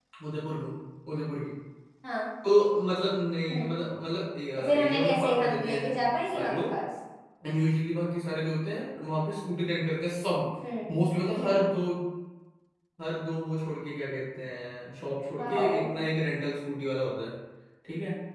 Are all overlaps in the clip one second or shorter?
No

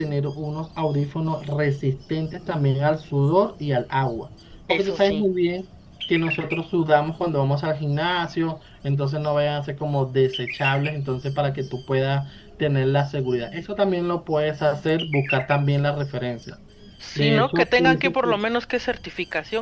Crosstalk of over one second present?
Yes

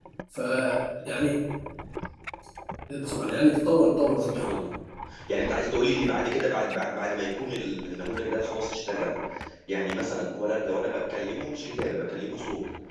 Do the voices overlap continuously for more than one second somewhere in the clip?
No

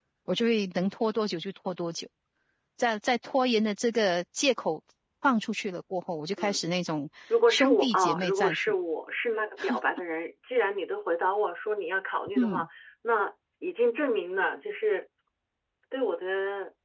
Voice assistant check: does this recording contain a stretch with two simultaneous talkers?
Yes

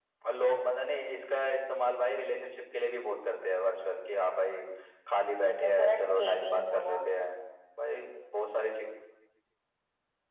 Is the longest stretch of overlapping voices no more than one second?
No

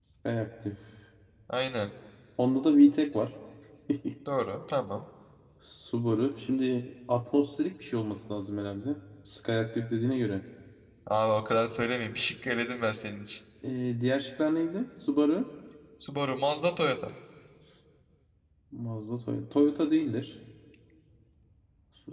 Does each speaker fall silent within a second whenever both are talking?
Yes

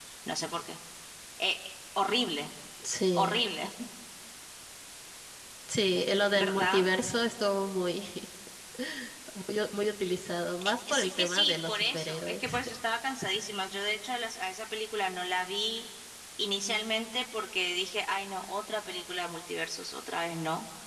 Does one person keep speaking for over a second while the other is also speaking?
Yes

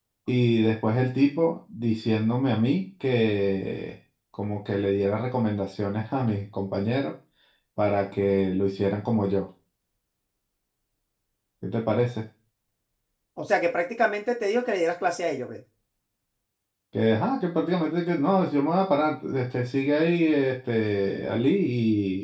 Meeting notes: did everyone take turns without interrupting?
Yes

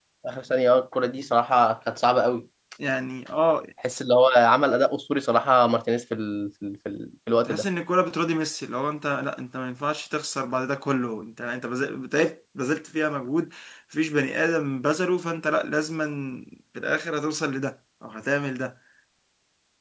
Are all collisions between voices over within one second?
Yes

